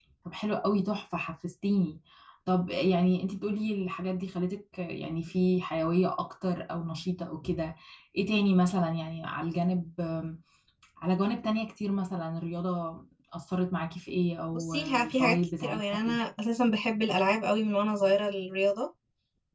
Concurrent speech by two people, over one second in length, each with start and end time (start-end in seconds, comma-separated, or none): 14.5-16.2